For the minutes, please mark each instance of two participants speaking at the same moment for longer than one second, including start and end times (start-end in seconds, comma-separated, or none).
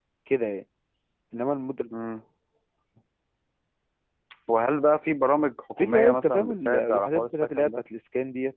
5.8-7.7